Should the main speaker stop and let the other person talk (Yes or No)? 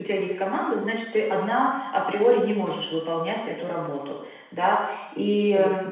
No